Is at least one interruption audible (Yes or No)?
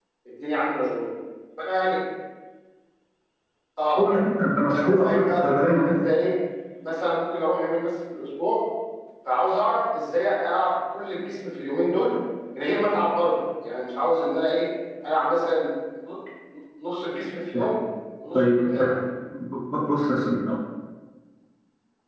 Yes